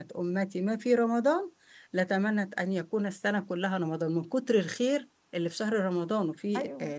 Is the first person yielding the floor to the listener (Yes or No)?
Yes